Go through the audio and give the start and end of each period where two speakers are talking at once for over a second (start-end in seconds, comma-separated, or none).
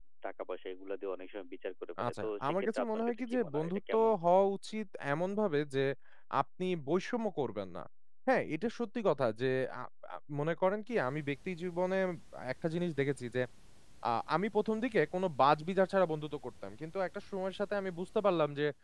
2.1-4.1